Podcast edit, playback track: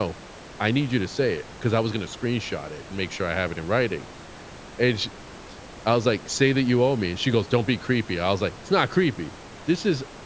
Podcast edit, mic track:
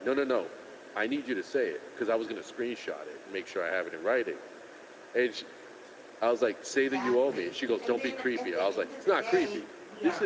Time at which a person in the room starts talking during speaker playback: 6.7 s

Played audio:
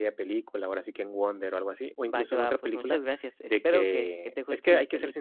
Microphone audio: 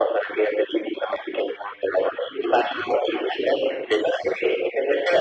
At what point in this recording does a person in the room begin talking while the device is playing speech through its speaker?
none

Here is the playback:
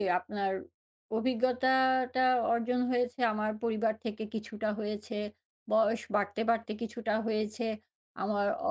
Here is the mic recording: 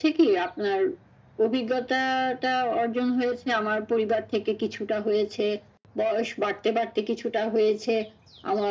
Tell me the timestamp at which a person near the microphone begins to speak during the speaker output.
none

